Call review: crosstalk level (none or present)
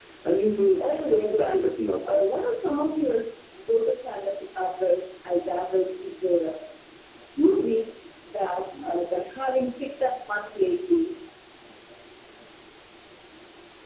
present